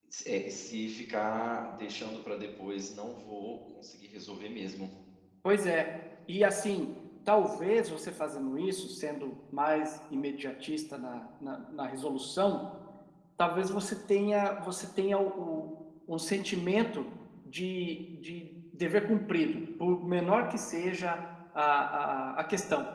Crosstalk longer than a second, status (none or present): none